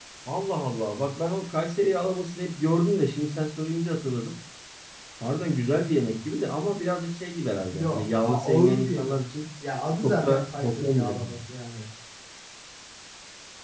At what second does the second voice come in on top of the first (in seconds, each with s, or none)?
7.7 s